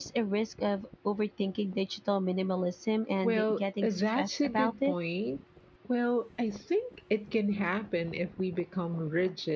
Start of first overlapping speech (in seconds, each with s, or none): 3.2 s